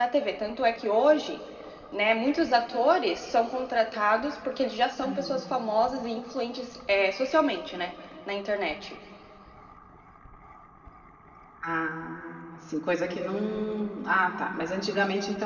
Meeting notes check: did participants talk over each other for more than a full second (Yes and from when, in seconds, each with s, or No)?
No